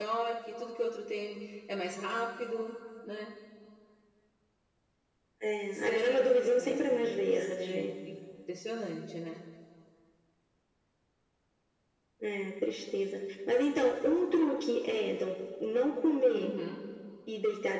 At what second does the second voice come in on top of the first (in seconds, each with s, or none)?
5.7 s